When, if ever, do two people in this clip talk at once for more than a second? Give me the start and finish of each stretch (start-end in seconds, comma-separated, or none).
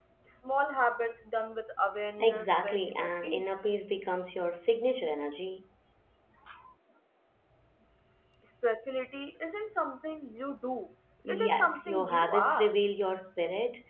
2.2-3.5, 11.5-12.8